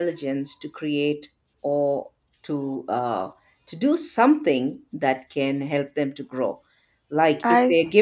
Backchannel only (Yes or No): Yes